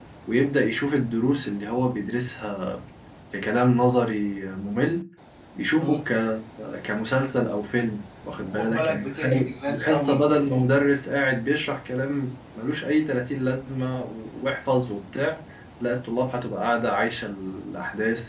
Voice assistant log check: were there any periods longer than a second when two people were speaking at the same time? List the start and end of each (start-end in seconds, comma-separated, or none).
8.4-10.3